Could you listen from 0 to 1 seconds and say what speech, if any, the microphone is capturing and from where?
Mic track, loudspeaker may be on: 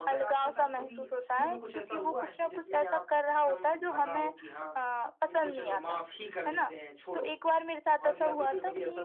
both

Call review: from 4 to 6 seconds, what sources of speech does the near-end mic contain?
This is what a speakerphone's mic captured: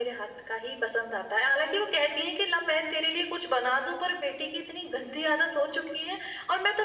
echo only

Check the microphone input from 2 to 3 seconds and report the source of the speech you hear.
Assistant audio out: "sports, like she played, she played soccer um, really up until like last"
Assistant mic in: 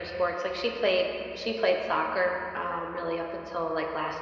echo only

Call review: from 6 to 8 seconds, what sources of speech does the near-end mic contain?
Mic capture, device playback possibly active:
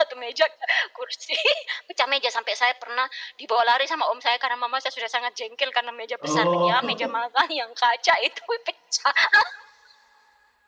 both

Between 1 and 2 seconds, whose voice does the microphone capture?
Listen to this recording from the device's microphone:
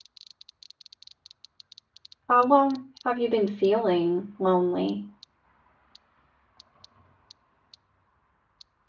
neither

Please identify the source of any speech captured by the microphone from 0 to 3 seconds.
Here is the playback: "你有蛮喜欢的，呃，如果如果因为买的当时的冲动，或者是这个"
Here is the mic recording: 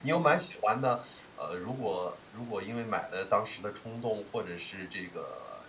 echo only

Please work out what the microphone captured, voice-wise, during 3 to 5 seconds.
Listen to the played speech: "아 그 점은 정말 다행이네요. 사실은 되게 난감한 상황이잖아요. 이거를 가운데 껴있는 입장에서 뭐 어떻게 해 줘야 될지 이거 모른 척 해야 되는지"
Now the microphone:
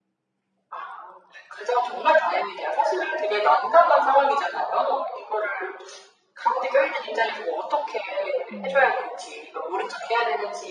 echo only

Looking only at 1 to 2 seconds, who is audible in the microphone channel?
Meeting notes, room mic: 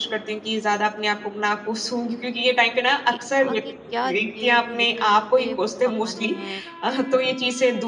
echo only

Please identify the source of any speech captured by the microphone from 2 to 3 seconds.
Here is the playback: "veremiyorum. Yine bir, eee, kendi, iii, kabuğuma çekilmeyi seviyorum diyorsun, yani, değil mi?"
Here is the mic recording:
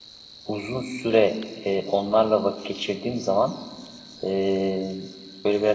user only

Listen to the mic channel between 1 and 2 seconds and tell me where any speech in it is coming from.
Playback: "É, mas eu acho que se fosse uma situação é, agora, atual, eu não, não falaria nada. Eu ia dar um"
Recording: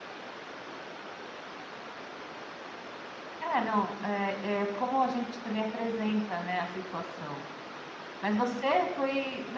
neither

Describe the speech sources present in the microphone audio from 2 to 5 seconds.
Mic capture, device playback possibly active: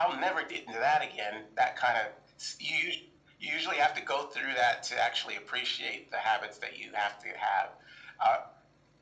echo only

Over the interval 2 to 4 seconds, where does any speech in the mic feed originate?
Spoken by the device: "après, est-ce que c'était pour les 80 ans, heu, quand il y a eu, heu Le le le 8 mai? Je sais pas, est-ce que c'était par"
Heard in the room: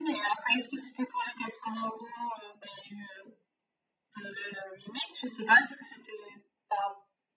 echo only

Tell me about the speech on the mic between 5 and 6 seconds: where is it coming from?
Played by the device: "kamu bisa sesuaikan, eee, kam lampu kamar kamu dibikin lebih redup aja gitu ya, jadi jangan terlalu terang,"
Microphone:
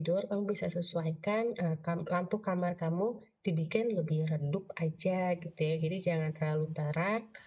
echo only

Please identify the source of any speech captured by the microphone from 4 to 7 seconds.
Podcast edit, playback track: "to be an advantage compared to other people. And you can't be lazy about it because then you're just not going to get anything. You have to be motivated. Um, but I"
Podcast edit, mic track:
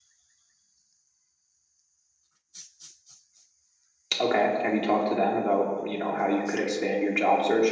user only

